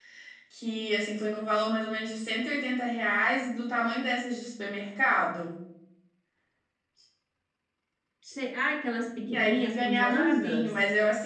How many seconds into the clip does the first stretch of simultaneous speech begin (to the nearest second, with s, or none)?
9 s